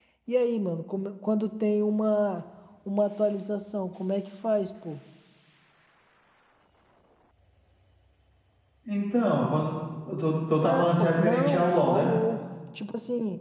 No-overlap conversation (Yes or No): No